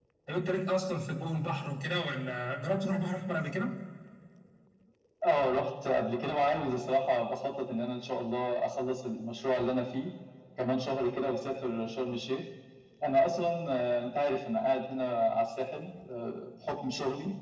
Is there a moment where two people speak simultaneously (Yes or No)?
No